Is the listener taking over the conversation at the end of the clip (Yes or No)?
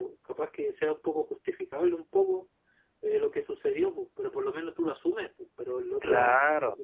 Yes